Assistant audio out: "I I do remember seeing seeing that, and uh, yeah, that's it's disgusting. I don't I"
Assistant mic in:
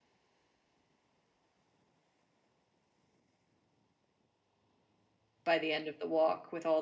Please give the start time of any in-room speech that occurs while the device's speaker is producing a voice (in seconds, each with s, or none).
5.5 s